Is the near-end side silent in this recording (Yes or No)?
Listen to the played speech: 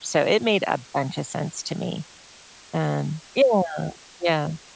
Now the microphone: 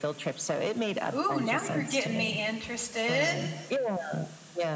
No